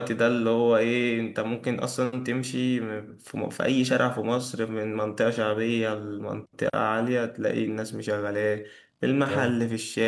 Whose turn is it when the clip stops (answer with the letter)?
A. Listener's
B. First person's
B